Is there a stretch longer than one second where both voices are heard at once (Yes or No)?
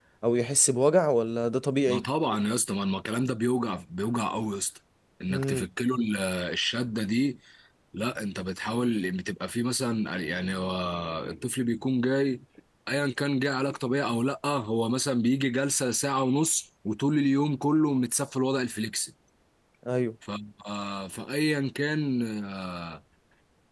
No